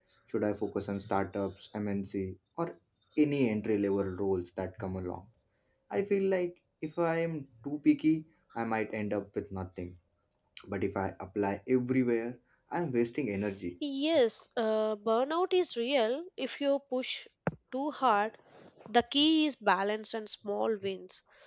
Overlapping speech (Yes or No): No